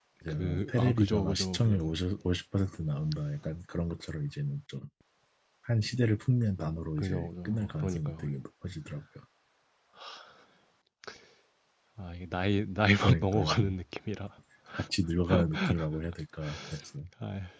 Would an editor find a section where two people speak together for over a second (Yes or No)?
Yes